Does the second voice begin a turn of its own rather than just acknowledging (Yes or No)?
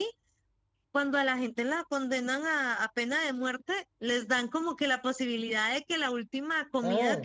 No